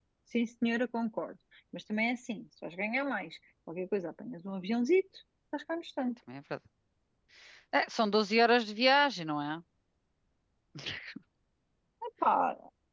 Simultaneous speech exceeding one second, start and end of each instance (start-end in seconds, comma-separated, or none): none